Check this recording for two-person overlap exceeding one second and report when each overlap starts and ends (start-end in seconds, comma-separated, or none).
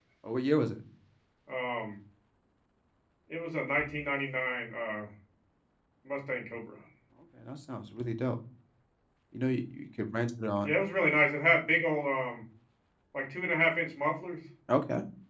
none